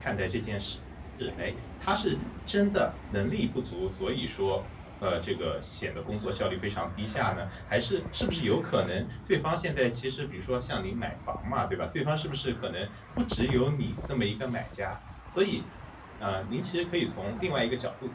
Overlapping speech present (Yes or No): No